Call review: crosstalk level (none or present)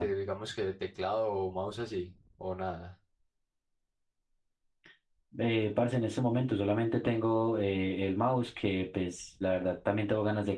none